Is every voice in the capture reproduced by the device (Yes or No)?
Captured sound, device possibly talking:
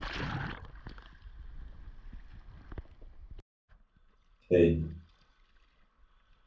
No